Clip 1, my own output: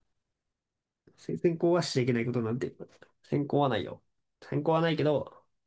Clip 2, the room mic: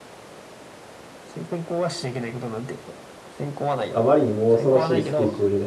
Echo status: present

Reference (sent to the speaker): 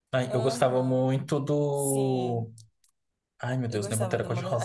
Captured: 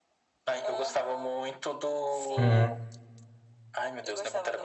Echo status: present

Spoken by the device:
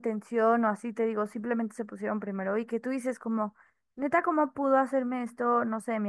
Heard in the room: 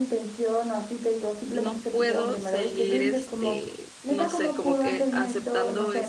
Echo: present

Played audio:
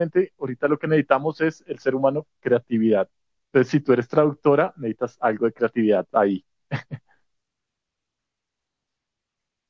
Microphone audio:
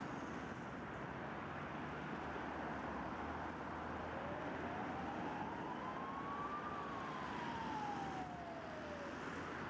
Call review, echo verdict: none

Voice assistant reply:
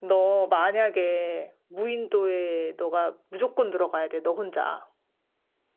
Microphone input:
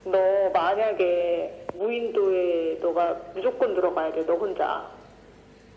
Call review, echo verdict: present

